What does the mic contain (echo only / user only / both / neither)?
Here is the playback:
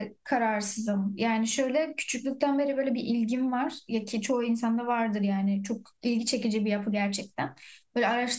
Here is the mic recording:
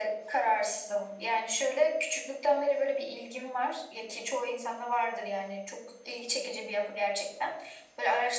echo only